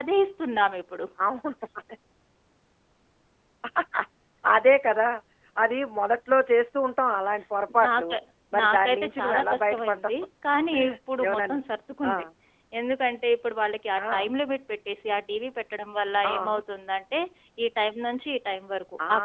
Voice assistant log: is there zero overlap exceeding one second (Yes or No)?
No